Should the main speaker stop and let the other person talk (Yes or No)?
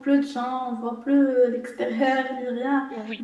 No